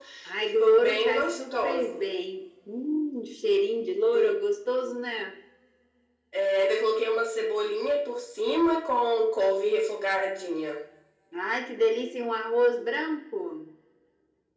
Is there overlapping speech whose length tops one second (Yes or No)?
Yes